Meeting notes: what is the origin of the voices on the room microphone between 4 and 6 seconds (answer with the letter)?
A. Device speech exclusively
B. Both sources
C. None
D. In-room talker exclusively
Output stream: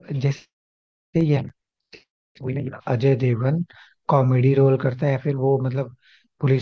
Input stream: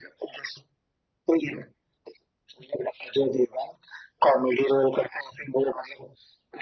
A